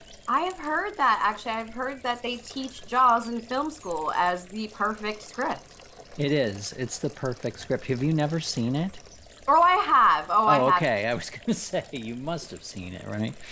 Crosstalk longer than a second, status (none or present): none